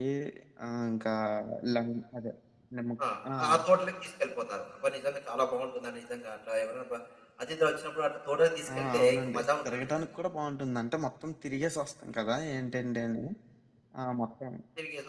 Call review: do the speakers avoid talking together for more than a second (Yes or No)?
No